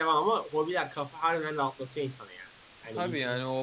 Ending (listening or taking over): taking over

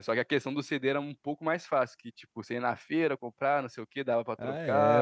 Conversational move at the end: taking over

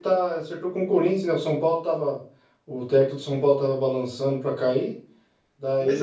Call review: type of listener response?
listening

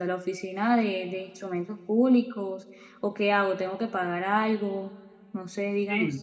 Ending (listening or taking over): taking over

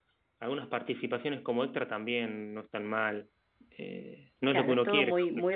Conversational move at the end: taking over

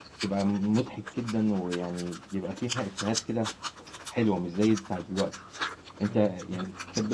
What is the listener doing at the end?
listening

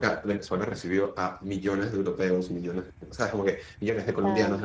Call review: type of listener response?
listening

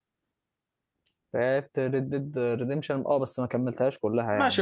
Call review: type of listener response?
taking over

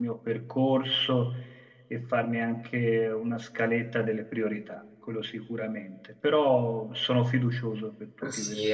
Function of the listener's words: taking over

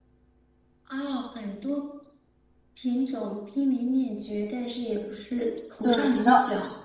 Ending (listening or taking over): taking over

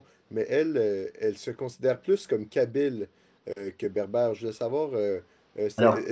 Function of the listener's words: listening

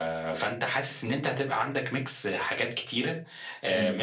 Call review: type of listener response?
listening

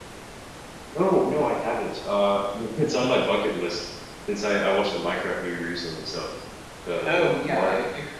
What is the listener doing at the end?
taking over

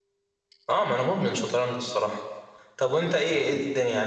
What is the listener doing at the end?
listening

